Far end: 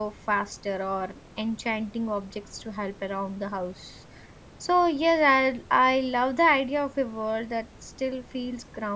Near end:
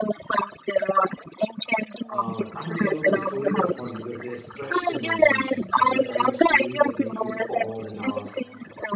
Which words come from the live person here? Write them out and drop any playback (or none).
uh, unbelievable stories are fun because they stretch the imagination they're kind of stories that make you pause and ask